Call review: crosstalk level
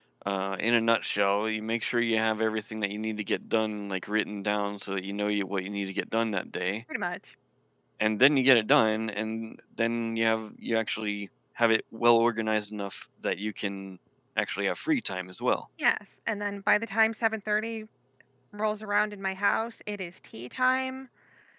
none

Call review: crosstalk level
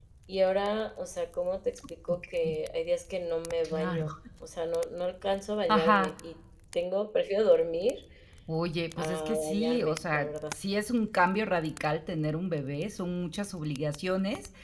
present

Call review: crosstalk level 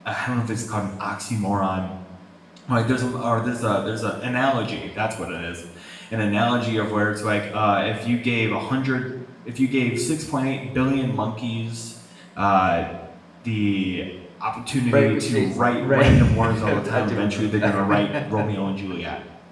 present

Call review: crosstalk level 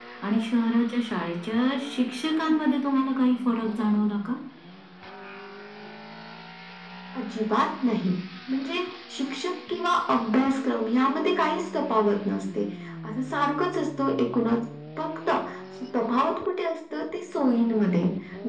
none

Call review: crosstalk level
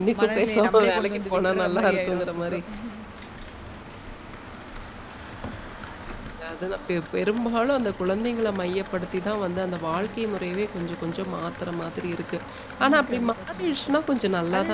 present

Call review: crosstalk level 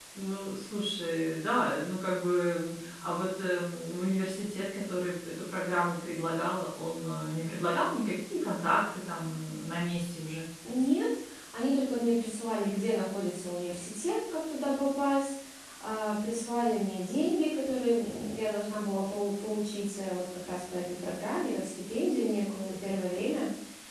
none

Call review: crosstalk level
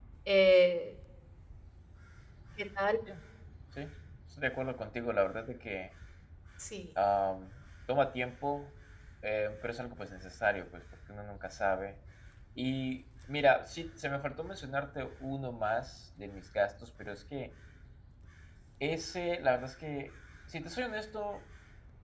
none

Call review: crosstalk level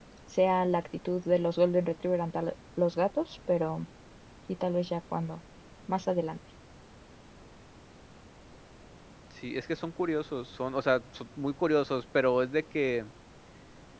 none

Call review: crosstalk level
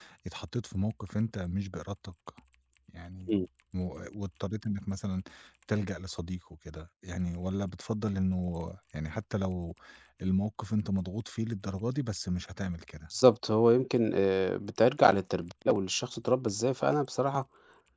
none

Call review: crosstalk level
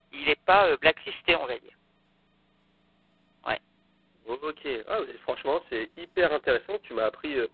none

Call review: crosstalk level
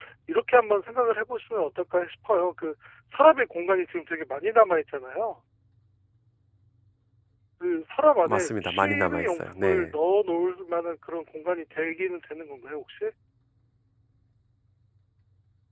present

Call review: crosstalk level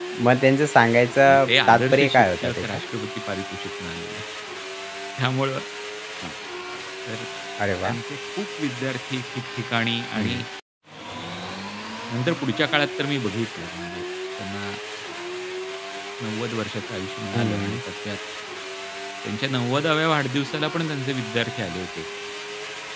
present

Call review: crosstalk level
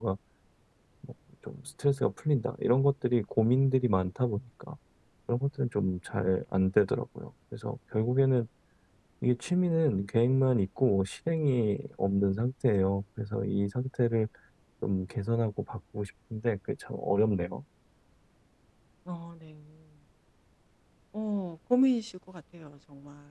none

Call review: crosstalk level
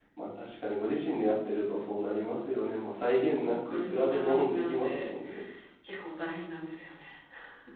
present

